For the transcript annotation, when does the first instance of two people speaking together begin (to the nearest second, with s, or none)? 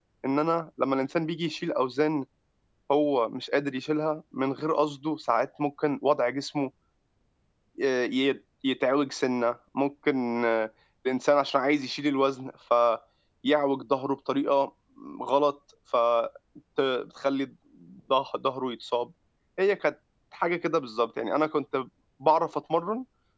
none